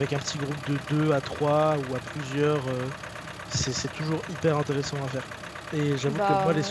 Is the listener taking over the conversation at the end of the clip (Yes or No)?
No